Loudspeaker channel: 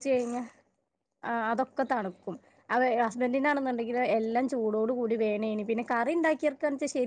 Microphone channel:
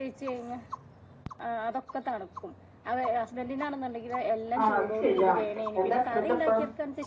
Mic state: both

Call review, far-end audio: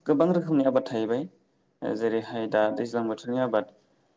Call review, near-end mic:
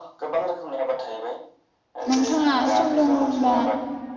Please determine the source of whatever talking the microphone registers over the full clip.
both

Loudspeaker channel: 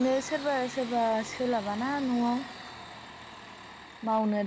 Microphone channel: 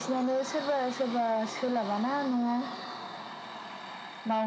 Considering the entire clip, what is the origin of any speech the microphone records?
echo only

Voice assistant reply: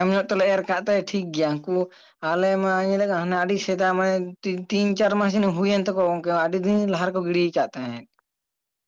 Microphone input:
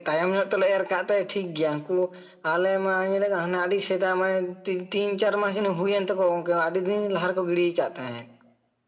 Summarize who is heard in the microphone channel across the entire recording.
echo only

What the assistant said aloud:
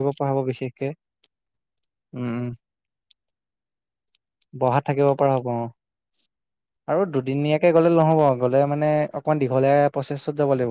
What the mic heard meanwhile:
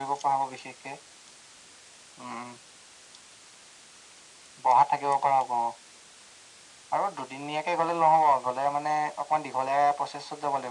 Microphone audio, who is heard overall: echo only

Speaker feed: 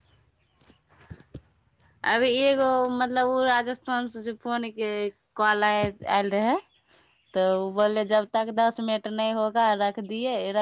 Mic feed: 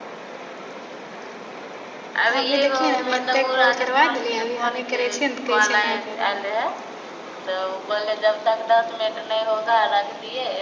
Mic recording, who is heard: both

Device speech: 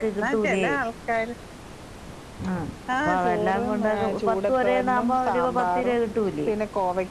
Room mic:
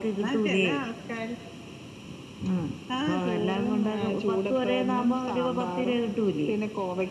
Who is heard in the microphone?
echo only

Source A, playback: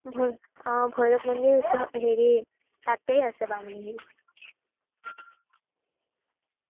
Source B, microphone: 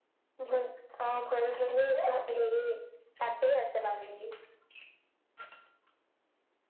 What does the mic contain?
echo only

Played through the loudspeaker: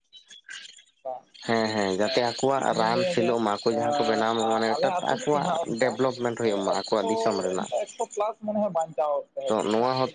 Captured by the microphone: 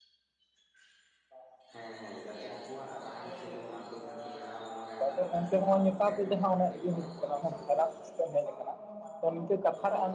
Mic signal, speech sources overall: both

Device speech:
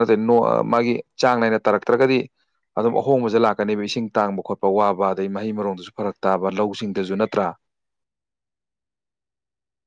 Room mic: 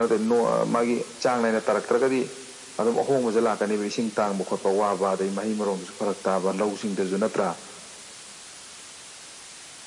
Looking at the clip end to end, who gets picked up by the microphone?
echo only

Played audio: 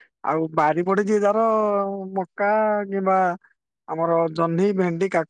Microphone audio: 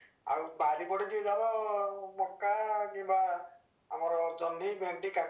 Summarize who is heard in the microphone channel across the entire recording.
echo only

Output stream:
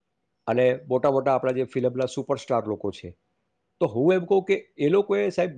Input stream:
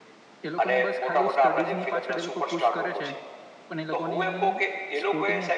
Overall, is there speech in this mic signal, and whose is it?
both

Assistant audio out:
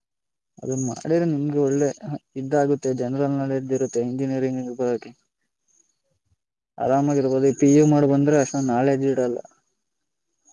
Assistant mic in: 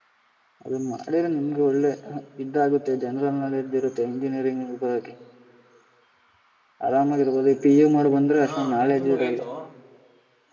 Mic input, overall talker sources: both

